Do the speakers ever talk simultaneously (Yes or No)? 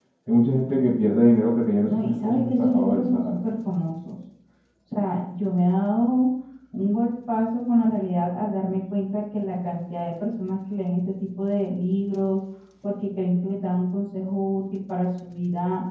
Yes